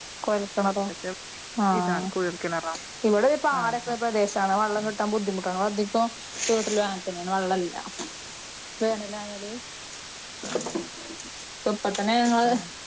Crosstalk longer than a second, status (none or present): none